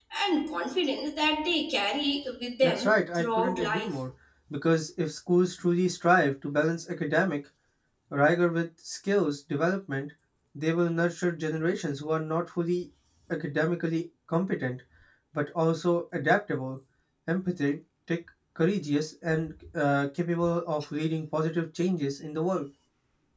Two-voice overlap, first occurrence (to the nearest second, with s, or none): 3 s